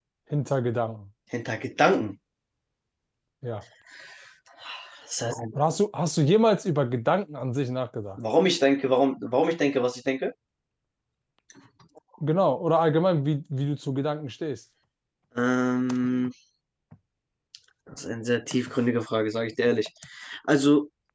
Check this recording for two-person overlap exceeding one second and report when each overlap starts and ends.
none

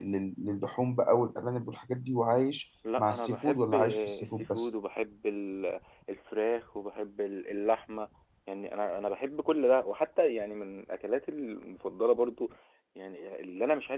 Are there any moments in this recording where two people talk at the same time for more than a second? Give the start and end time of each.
3.0-4.7

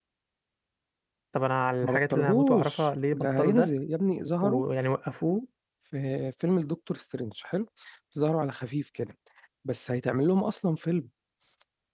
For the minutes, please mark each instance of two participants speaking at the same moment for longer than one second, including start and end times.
1.8-3.7

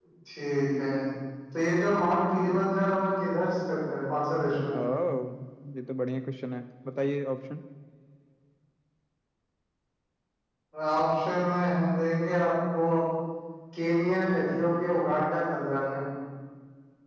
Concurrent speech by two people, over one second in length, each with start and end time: none

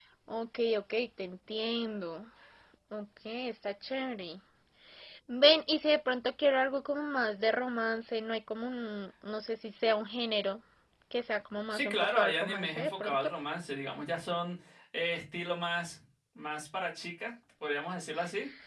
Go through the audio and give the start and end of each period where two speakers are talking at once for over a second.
11.7-13.3

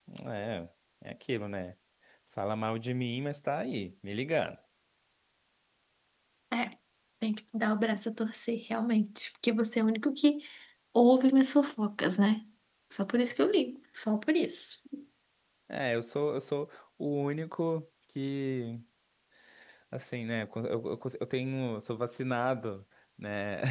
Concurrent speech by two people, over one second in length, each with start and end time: none

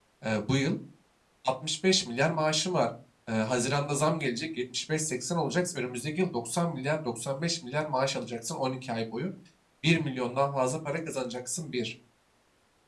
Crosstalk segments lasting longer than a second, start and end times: none

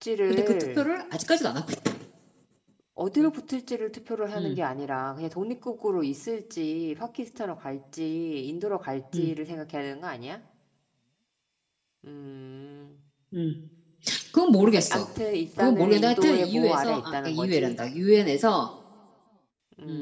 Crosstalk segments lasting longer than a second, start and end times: 15.6-17.8

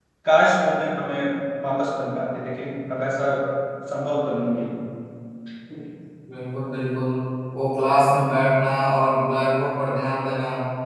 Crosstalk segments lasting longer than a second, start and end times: none

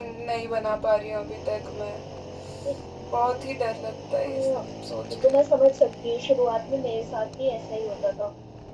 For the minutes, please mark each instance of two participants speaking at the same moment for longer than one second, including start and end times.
none

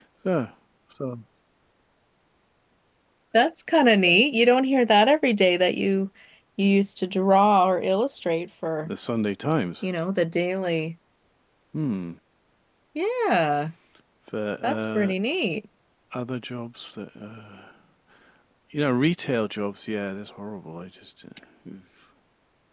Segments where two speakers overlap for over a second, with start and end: none

